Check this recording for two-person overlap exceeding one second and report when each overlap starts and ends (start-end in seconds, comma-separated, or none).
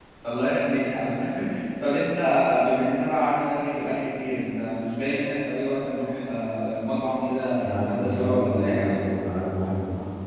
7.6-9.0